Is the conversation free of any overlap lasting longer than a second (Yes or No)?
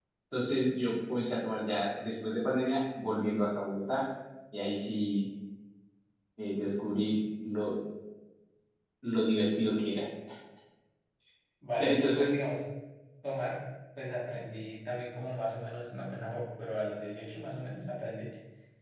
Yes